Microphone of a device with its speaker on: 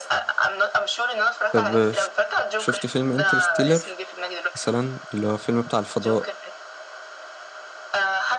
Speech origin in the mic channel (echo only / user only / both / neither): both